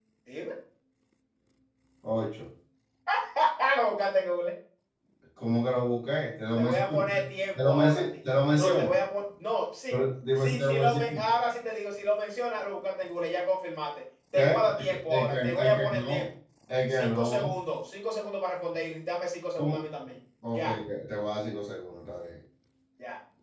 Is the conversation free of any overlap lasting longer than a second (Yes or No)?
No